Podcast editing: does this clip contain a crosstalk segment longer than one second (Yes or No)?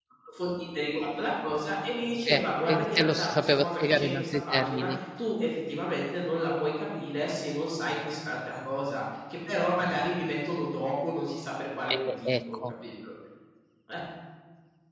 Yes